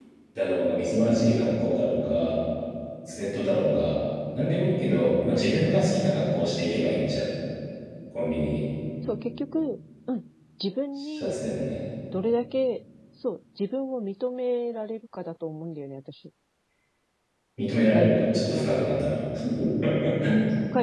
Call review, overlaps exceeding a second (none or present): present